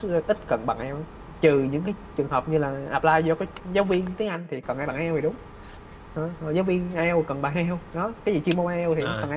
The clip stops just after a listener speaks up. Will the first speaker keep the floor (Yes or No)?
No